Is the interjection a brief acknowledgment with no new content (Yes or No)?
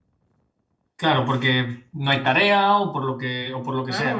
No